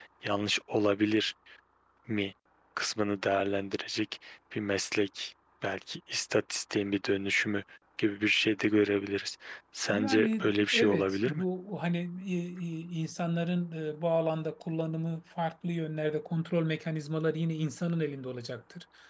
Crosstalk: present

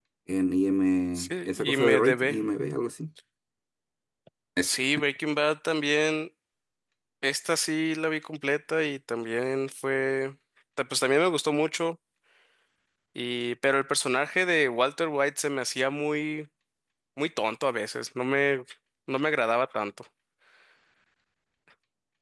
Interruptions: present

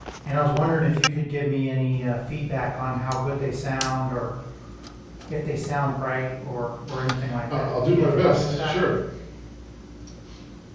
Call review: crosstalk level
present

